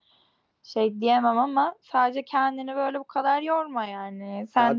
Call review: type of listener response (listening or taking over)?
listening